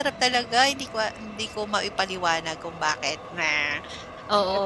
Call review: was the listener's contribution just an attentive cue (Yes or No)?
No